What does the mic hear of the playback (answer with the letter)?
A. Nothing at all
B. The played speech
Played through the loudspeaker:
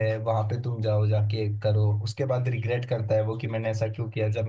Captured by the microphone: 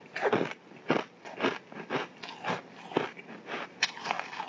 A